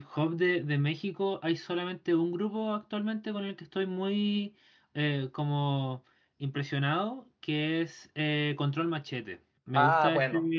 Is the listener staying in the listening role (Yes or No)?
Yes